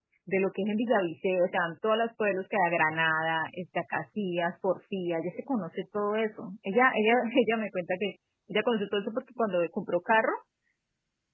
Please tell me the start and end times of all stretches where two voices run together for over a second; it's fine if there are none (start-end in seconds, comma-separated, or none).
none